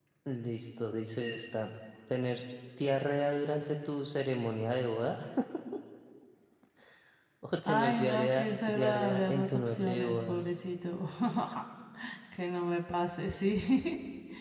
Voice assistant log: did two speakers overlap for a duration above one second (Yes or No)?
Yes